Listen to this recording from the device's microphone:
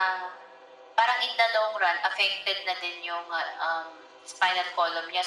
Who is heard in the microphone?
echo only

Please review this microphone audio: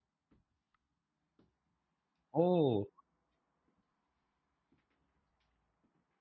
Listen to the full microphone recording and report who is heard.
user only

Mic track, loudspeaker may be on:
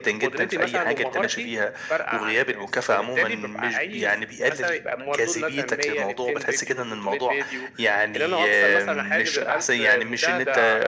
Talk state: echo only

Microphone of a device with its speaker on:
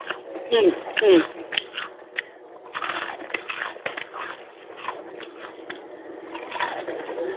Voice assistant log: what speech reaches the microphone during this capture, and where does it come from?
user only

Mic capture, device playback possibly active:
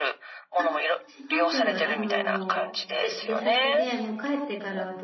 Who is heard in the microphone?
both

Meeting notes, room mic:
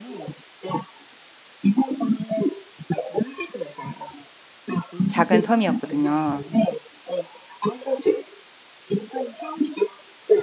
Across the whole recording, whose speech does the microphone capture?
both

